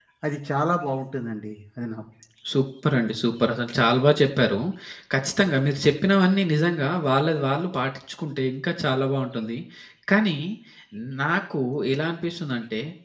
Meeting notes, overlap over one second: none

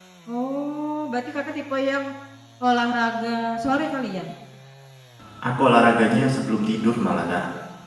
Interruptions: none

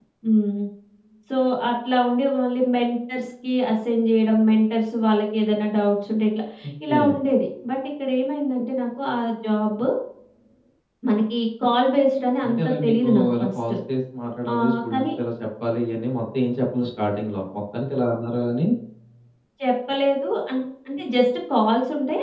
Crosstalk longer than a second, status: present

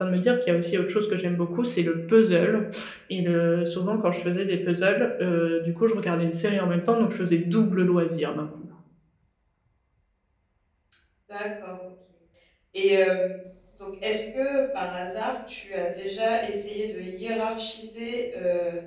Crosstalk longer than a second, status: none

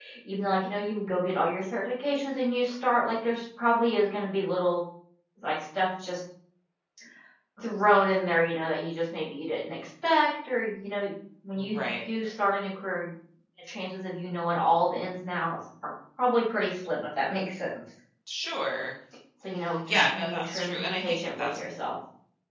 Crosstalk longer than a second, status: present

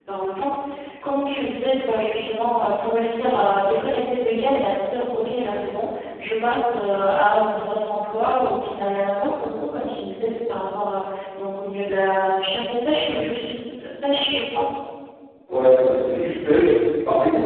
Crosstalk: none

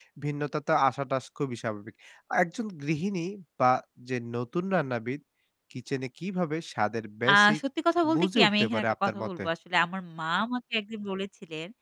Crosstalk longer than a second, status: present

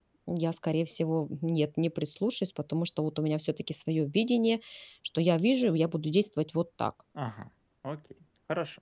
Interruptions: none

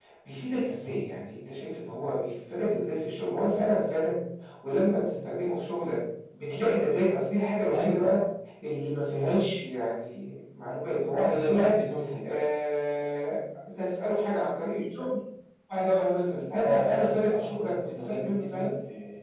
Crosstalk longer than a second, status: present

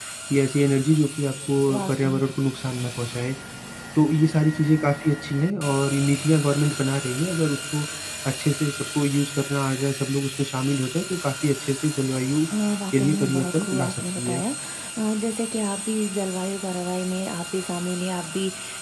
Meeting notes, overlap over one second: present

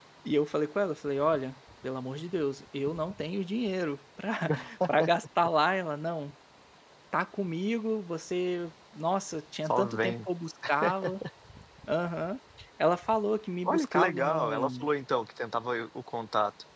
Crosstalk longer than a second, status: present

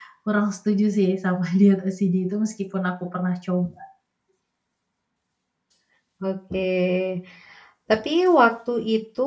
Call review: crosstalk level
none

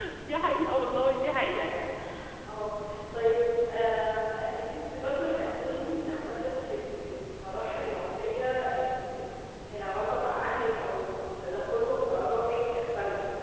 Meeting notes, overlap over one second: none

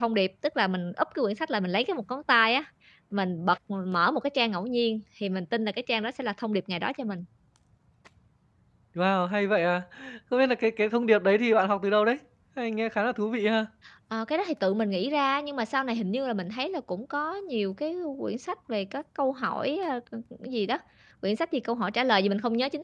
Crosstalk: none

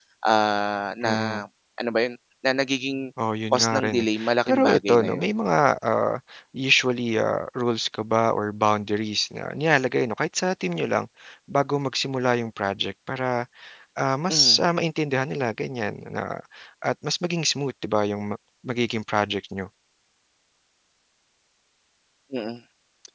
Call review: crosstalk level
present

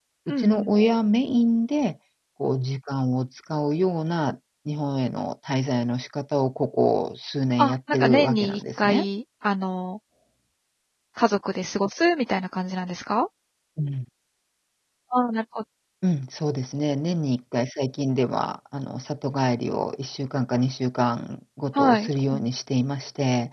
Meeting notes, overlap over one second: present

